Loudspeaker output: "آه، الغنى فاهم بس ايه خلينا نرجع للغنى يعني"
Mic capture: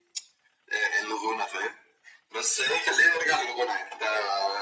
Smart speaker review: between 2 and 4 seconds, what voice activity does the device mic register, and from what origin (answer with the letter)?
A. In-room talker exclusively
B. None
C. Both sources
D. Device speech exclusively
D